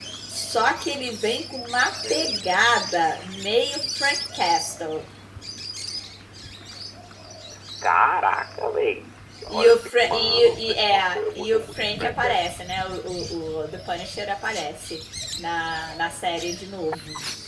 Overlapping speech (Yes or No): Yes